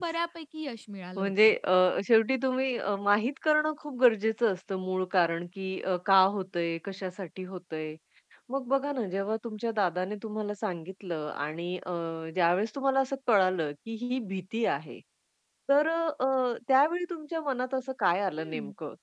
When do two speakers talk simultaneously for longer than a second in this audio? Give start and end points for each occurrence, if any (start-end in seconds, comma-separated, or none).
none